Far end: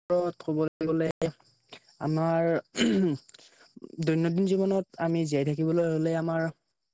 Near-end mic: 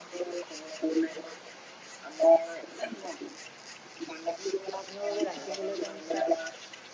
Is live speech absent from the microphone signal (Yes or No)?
No